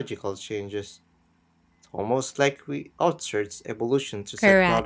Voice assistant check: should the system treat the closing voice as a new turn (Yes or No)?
Yes